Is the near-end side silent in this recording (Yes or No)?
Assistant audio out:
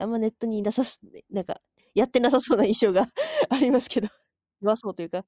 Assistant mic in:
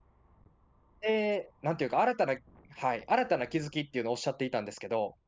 No